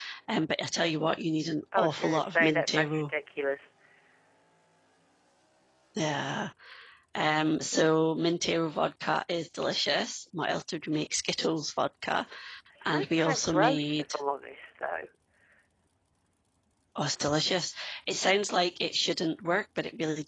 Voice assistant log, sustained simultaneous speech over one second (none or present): present